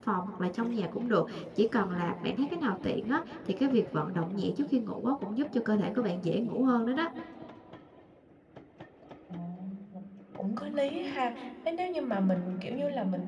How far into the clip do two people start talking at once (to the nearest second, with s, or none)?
none